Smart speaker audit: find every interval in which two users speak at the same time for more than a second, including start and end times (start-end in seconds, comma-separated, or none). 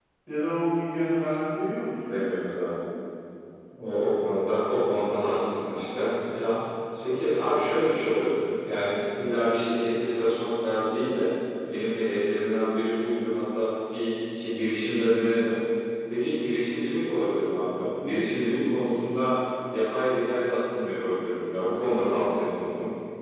none